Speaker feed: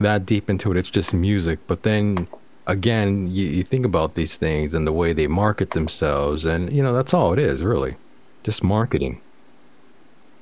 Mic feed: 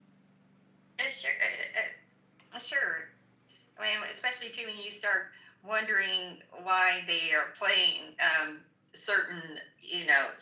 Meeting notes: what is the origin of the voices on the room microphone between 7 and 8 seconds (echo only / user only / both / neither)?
user only